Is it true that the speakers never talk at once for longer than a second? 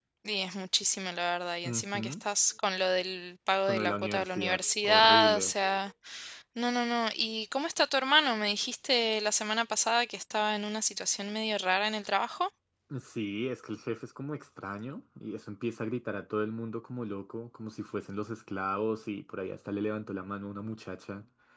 No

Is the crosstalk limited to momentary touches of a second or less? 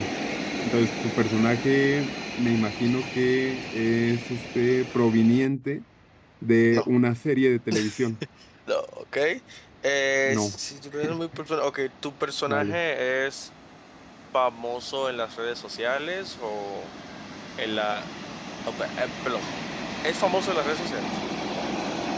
Yes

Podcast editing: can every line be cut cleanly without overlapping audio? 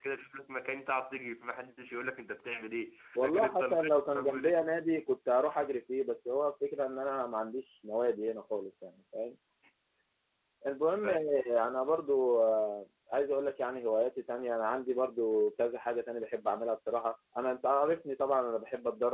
No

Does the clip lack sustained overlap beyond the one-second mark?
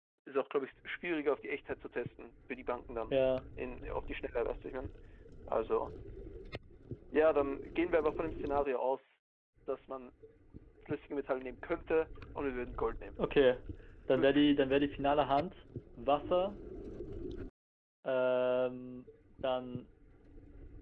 Yes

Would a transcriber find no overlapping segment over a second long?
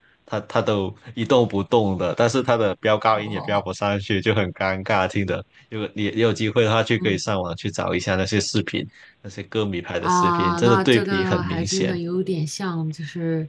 No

